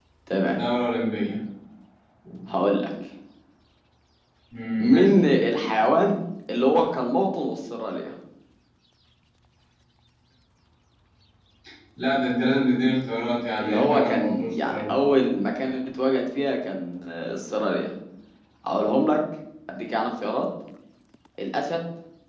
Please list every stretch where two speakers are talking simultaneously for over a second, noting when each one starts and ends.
13.6-14.9

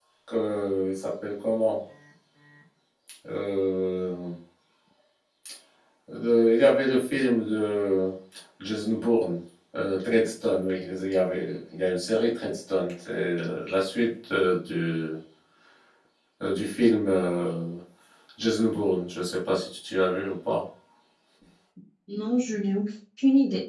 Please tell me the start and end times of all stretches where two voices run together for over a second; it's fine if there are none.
none

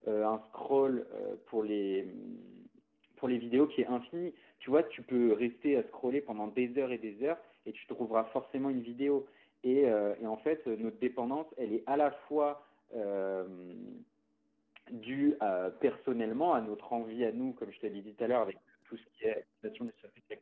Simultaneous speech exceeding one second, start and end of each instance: none

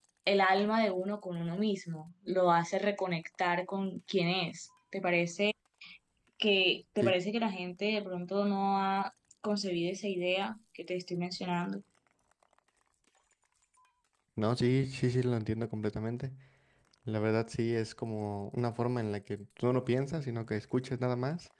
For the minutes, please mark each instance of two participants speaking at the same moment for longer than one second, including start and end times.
none

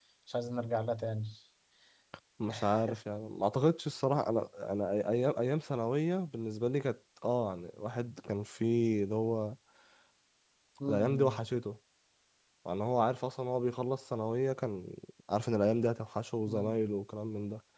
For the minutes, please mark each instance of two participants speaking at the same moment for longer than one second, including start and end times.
none

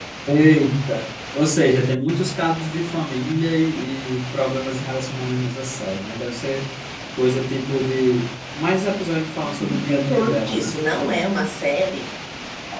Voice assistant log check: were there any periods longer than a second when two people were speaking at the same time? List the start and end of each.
9.6-10.8

